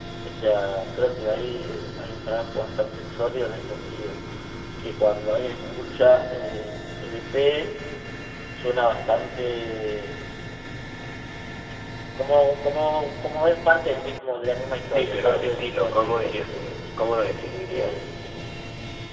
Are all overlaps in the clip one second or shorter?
No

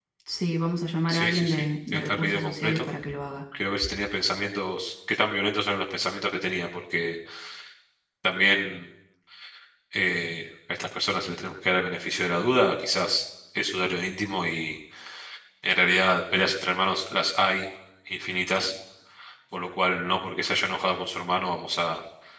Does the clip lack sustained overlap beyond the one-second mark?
No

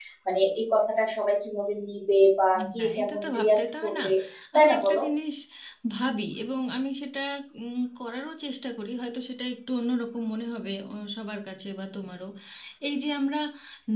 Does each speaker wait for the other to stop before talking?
No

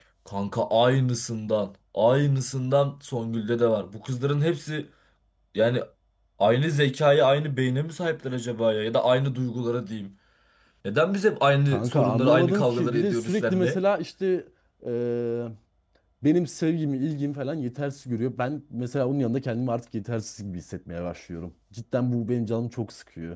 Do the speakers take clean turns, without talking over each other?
No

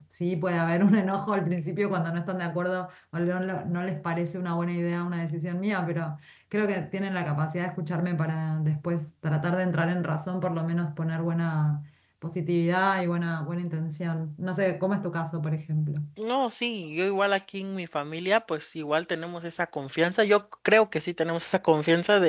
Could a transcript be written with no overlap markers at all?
Yes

